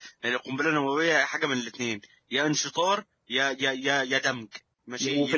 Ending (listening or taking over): taking over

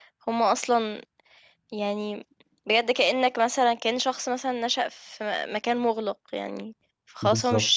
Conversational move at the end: listening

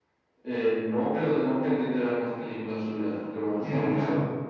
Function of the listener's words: taking over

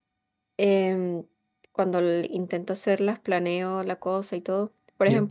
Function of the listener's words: listening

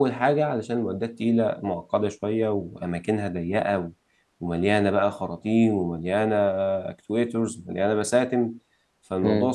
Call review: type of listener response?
listening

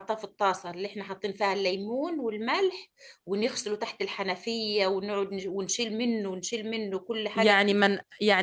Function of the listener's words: taking over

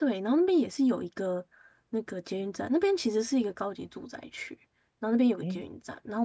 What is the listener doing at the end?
listening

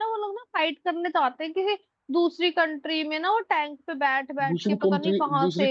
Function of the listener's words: taking over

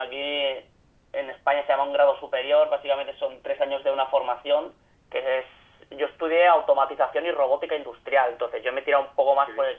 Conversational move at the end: listening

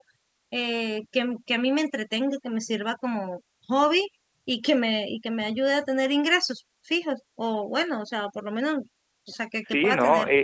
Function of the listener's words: taking over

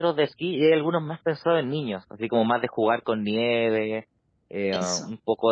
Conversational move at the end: listening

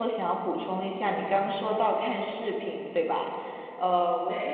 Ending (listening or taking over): listening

